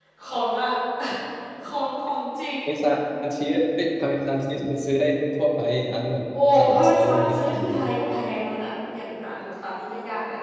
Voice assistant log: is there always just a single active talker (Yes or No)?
No